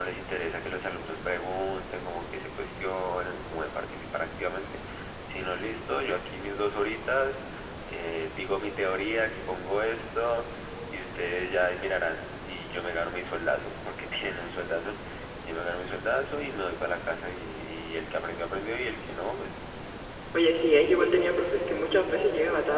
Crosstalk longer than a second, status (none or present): none